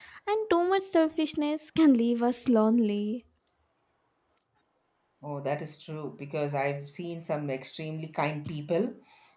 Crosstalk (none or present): none